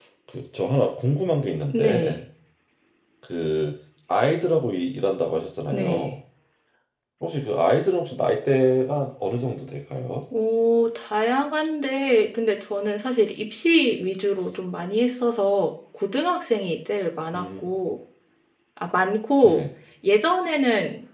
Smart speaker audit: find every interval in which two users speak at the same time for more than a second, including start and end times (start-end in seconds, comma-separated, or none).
none